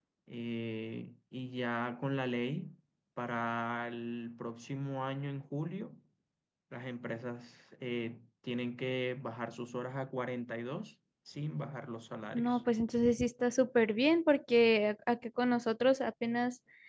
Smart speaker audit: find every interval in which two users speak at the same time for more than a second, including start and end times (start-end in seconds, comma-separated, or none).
none